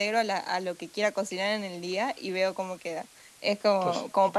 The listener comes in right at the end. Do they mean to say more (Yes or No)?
No